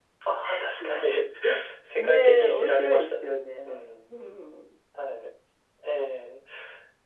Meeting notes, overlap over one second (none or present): present